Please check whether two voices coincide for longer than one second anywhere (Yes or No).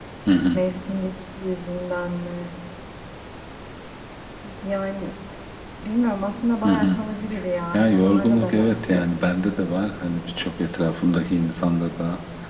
Yes